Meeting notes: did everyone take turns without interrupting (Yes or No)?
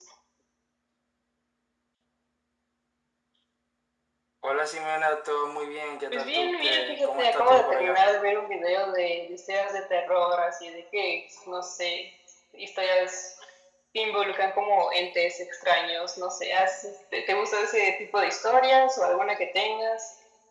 No